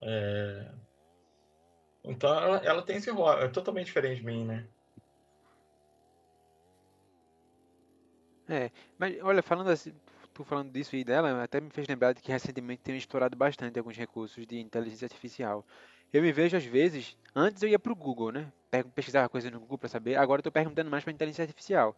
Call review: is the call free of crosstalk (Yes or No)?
Yes